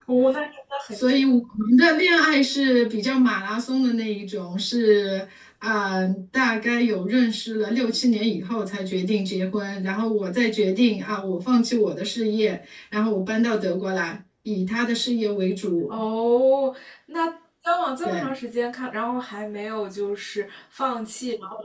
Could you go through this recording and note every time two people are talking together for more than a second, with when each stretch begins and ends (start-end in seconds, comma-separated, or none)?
none